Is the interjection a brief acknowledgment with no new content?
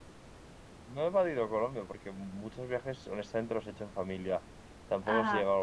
Yes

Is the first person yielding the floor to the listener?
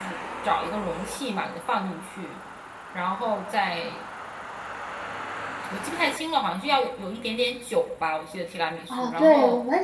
Yes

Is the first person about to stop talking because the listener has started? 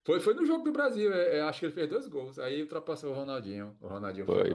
Yes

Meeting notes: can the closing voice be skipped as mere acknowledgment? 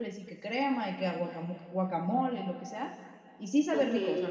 Yes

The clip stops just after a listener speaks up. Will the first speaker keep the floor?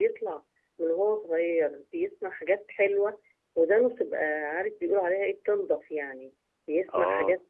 Yes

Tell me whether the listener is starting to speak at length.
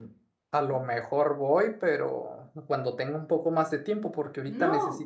No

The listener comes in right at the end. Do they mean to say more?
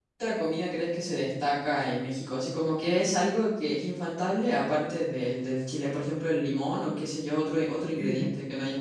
Yes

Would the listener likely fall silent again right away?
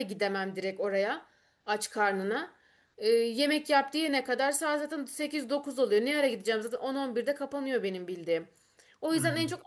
Yes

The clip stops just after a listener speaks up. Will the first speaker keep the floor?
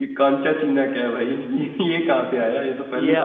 No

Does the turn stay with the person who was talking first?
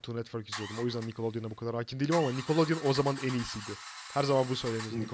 No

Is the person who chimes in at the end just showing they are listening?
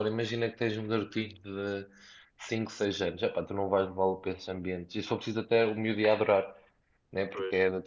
Yes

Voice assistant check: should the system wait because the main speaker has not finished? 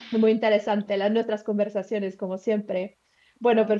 Yes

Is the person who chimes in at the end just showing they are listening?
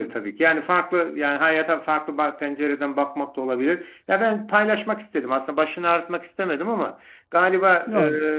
Yes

